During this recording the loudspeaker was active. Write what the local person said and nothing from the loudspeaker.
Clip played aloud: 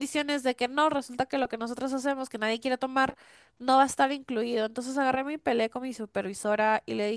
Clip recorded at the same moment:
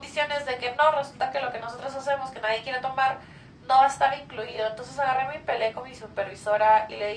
none

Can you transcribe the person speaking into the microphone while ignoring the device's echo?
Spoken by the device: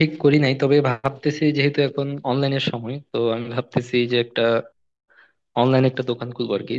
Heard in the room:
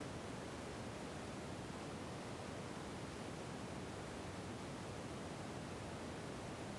none

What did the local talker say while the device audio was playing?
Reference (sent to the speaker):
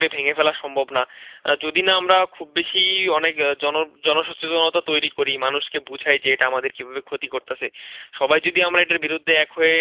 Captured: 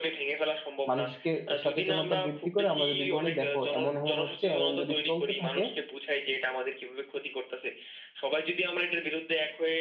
মানুষকে সচেতনতা বৃদ্ধি করে আমরা যদি বলি দেখো এমন এমন হচ্ছে এমন যদি চলতে থাকে

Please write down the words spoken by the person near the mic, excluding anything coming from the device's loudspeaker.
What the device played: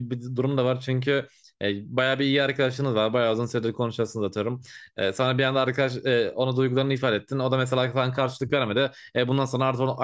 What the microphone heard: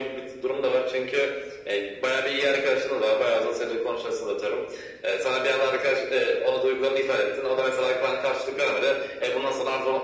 none

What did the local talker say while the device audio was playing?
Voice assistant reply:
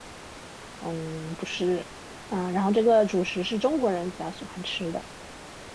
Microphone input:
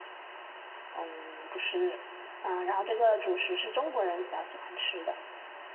none

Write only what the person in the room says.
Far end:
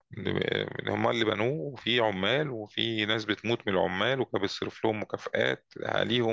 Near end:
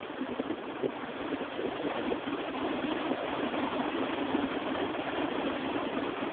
none

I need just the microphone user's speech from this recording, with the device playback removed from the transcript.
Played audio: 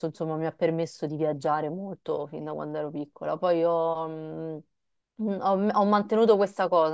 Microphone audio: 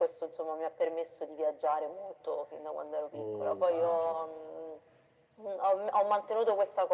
Oh, wow.

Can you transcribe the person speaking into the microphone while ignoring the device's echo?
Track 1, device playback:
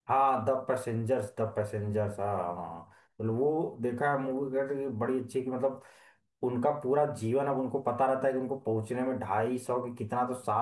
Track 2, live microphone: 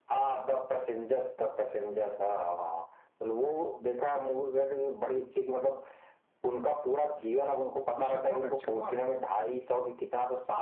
उसमें कौन है अक्षय कुमार

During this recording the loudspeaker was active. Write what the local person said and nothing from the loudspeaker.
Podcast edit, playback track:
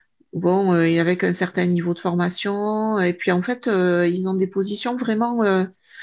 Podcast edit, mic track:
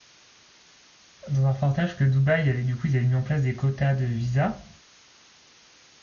dans un reportage que Dubaï, avait, du coup, ils avaient mis en place des quotas de visa.

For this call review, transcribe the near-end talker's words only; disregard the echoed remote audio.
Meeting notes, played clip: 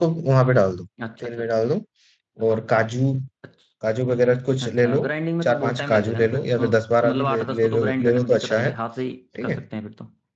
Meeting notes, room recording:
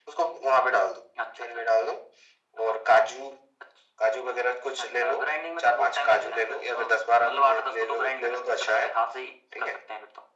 none

